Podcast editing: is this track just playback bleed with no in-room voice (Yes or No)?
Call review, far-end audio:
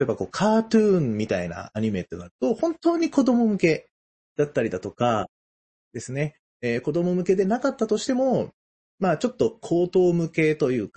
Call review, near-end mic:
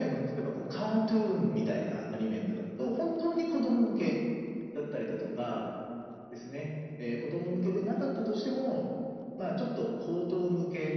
Yes